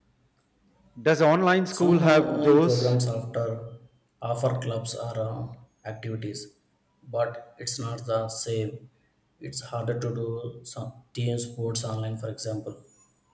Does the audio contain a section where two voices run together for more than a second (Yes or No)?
Yes